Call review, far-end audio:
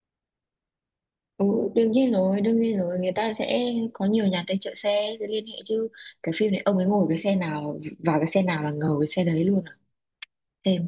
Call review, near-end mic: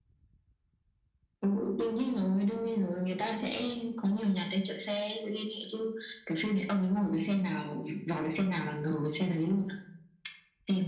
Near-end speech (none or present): none